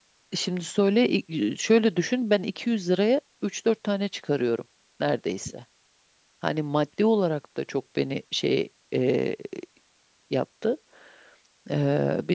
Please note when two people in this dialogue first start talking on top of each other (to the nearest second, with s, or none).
none